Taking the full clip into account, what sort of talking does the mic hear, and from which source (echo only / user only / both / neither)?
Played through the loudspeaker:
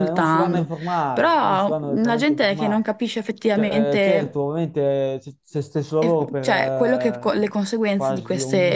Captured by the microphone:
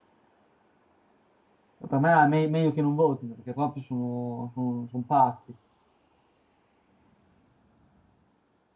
user only